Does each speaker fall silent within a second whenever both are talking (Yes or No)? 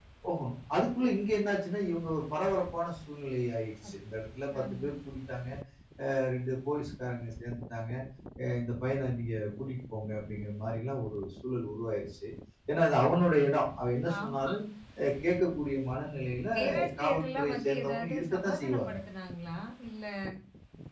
No